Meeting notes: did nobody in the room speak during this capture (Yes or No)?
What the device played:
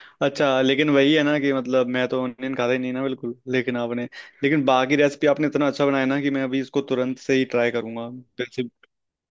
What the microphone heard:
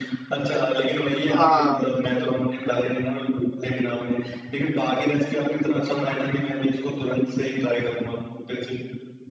No